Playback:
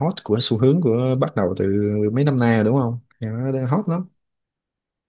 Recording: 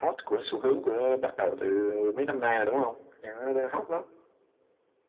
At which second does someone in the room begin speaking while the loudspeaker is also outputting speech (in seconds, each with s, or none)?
none